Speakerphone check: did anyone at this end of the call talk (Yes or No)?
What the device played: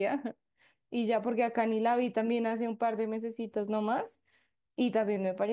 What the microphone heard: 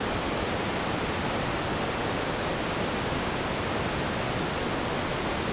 No